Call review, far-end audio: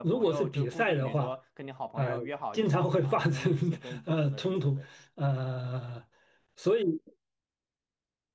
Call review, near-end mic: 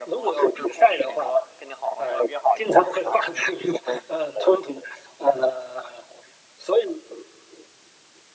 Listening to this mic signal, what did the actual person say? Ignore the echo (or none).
none